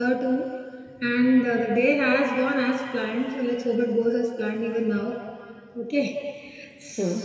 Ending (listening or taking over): listening